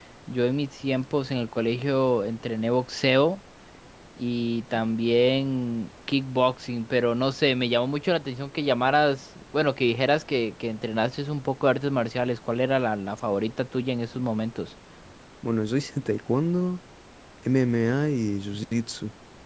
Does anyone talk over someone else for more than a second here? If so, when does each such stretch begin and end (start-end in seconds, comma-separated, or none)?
none